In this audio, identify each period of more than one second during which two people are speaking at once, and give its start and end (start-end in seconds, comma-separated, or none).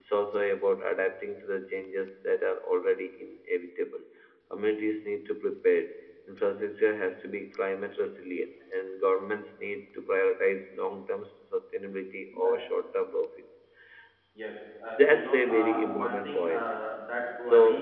15.0-16.7